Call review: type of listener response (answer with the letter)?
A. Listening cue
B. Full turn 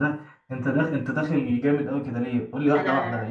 A